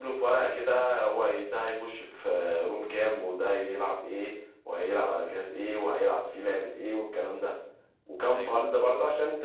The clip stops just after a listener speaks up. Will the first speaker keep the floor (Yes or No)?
Yes